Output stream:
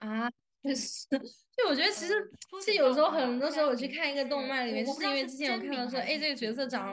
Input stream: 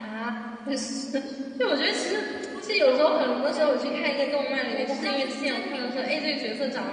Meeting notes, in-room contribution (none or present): none